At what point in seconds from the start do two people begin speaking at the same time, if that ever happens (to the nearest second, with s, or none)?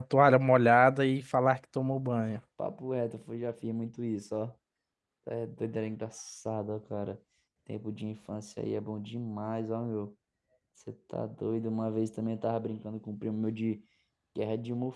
none